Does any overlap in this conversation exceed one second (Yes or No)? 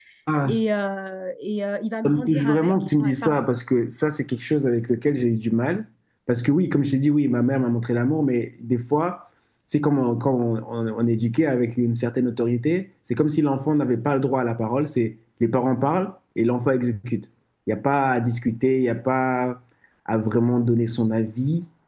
Yes